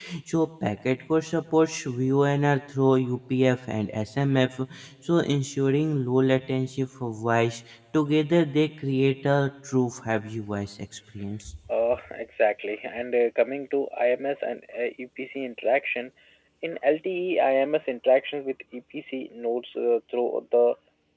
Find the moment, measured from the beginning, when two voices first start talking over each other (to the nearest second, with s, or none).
none